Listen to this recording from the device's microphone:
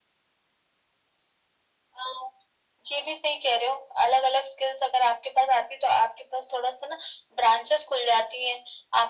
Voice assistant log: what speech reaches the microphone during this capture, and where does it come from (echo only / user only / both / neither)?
echo only